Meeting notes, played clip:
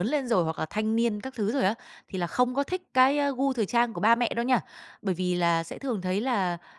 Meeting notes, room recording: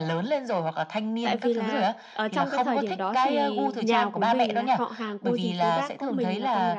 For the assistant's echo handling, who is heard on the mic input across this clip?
both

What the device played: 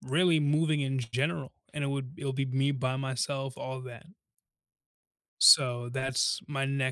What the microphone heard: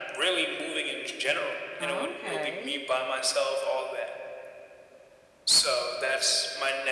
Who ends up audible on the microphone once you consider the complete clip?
both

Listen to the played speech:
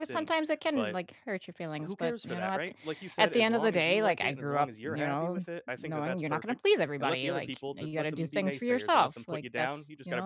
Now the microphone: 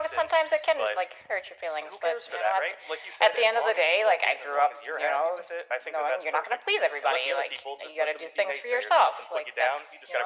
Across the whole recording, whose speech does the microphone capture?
echo only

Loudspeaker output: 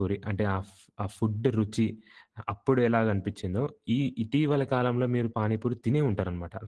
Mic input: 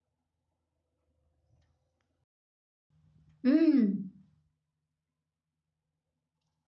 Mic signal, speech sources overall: user only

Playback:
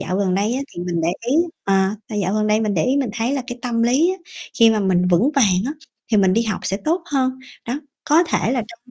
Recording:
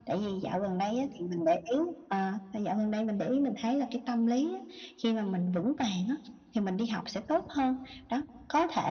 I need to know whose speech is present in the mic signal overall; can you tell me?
echo only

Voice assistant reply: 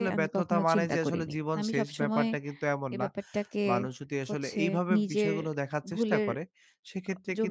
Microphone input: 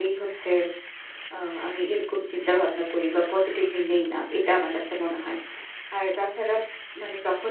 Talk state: user only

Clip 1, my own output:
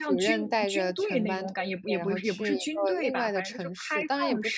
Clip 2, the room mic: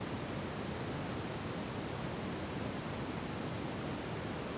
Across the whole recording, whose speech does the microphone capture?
neither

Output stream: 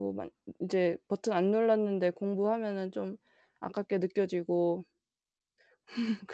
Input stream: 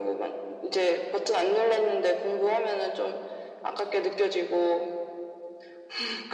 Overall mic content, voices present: echo only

